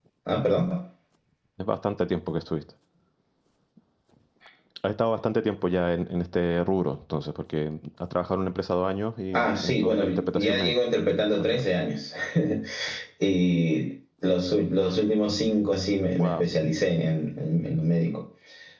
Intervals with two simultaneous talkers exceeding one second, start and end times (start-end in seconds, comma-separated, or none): 9.3-10.7